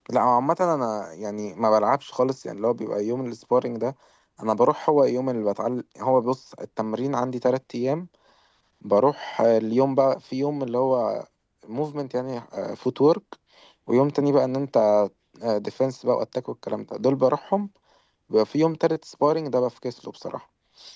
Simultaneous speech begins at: none

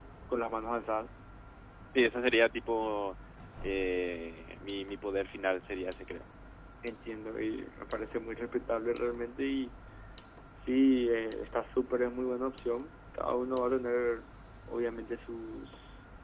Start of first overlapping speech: none

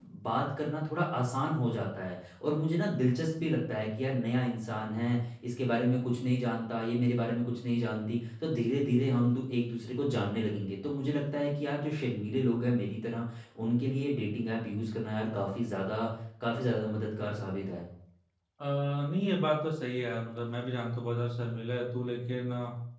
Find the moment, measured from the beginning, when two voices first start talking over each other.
none

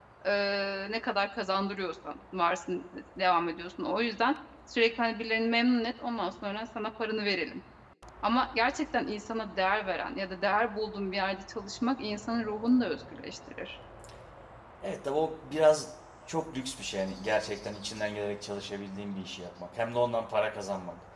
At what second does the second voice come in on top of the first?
none

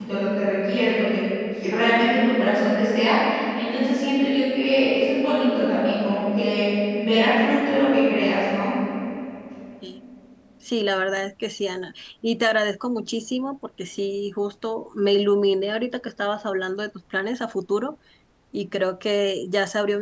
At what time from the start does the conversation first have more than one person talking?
none

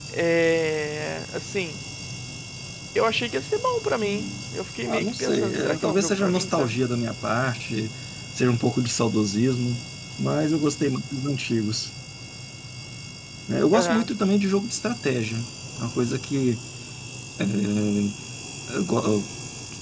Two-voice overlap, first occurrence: 4.9 s

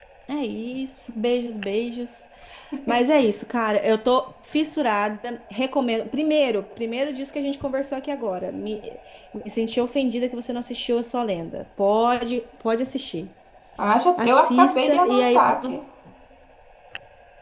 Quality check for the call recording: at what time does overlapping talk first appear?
14.2 s

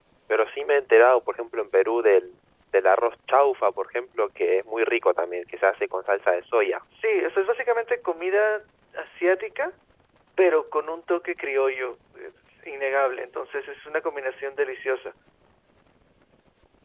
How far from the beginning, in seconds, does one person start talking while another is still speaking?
none

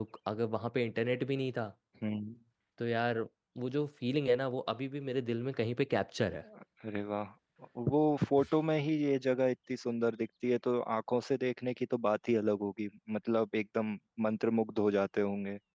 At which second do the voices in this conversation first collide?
none

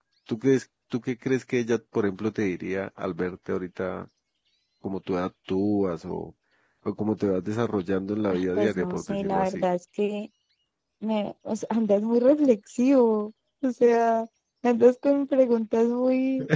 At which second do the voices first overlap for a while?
8.3 s

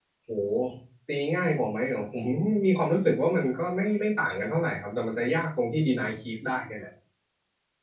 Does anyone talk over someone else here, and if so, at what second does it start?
none

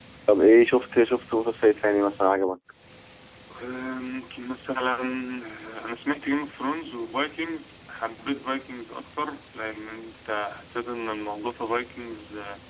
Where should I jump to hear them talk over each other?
none

